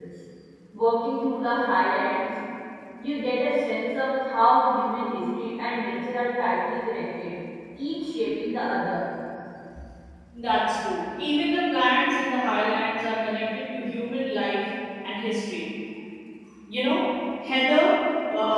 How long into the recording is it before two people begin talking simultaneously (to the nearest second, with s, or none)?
none